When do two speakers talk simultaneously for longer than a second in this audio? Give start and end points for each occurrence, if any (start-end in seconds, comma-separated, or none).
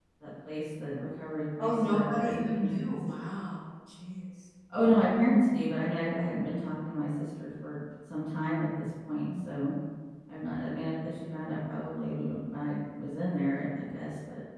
1.6-3.0